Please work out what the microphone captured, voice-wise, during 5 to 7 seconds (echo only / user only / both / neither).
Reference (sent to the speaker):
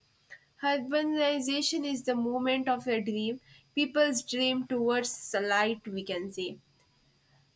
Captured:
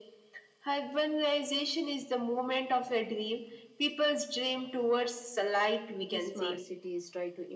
both